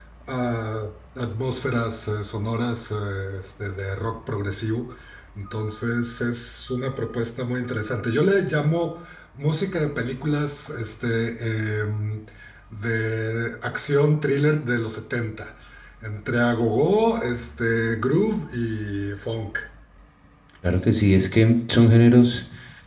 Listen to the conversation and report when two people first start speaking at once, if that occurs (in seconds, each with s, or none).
none